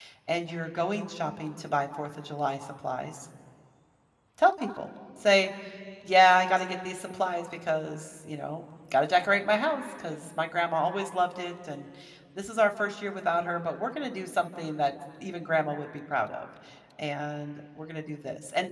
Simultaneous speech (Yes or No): No